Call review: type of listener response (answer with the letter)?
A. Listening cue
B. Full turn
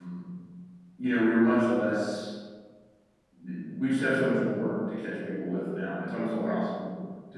A